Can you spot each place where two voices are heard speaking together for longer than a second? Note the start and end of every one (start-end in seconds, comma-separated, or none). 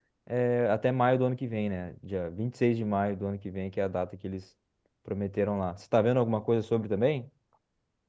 none